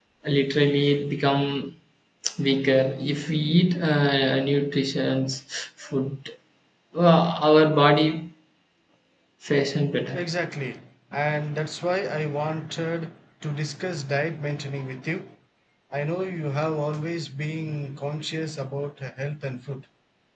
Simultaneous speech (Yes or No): No